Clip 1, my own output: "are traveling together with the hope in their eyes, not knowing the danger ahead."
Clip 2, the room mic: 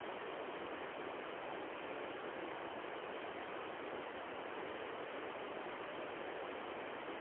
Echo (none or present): none